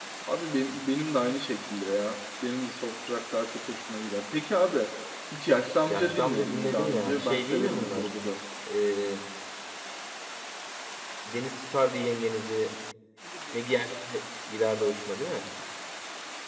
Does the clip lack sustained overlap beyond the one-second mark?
No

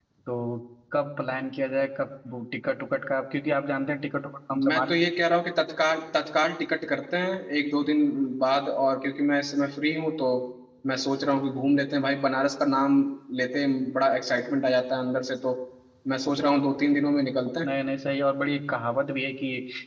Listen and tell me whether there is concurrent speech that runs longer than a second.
No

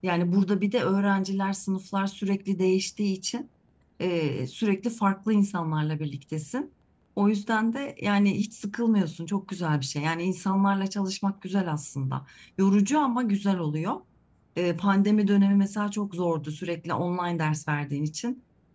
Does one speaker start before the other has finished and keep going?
No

